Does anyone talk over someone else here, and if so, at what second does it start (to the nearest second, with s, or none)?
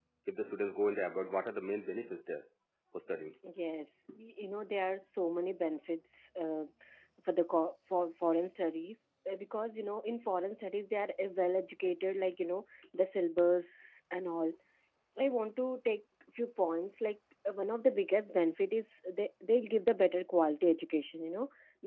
none